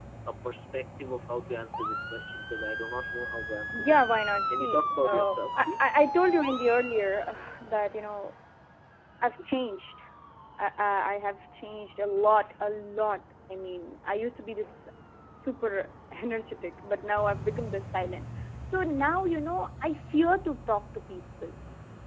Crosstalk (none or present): present